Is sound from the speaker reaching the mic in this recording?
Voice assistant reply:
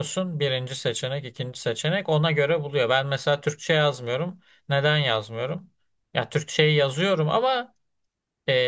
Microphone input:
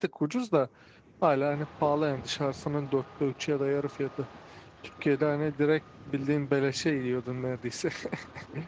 No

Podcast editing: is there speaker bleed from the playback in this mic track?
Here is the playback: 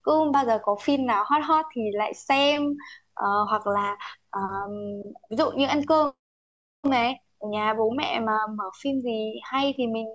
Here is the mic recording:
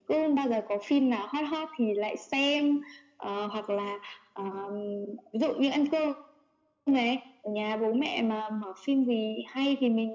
Yes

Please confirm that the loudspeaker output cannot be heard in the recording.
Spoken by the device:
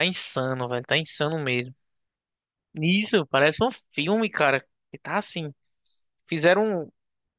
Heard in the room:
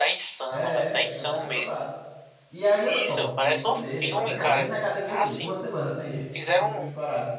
No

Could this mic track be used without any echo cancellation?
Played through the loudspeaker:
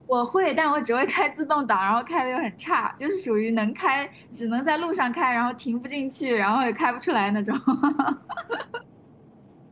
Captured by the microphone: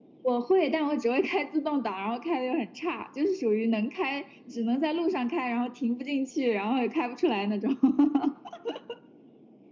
No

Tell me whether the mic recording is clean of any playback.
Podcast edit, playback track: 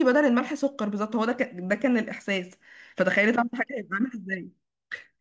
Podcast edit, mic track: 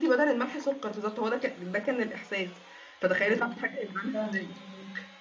No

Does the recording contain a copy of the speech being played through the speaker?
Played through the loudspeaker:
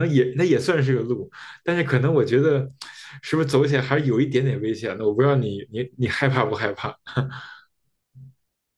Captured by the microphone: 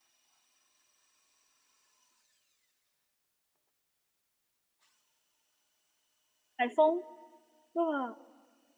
No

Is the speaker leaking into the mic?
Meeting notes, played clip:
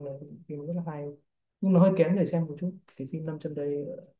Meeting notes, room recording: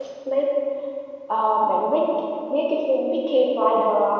No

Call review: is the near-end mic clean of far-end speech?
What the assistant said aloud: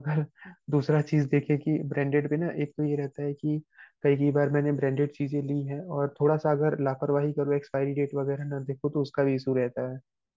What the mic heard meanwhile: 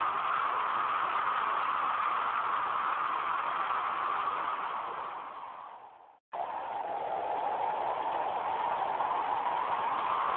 Yes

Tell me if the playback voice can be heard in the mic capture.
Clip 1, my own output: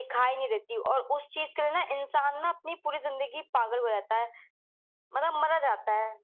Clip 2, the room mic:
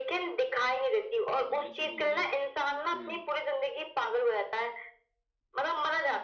Yes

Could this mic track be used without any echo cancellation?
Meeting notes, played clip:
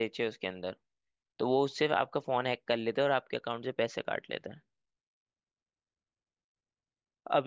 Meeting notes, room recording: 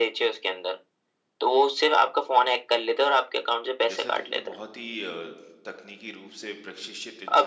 No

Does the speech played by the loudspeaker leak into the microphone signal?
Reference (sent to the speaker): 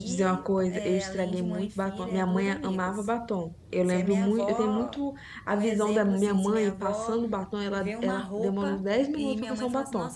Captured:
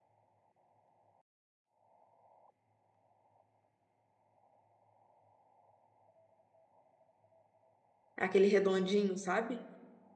No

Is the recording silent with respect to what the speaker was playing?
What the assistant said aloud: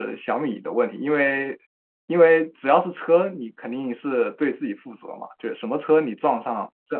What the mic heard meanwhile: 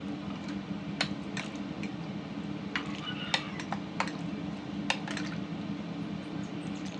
Yes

